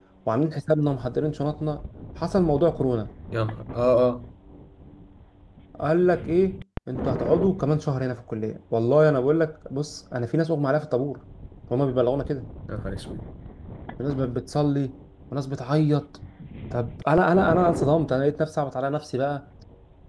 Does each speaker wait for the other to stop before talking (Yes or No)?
Yes